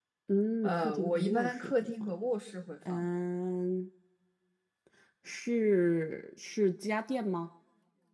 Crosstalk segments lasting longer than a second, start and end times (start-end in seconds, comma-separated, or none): 0.6-2.1